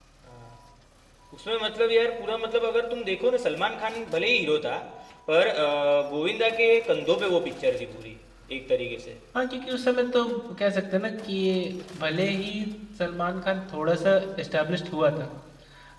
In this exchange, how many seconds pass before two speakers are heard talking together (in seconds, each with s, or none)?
none